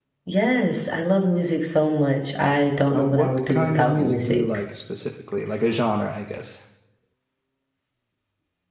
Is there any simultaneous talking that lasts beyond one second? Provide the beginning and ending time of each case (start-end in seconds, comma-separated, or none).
2.9-4.4